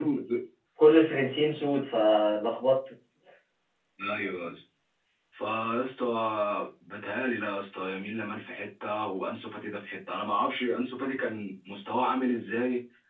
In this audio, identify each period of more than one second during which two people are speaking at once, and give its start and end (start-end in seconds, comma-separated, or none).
none